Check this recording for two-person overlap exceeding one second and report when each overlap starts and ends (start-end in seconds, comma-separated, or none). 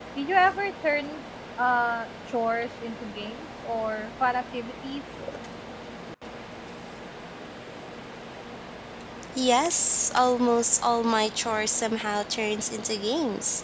none